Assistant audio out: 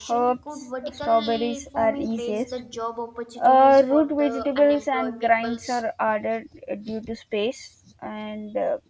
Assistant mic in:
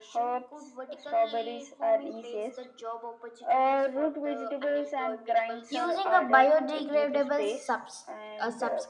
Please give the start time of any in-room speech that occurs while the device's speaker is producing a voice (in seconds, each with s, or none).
5.7 s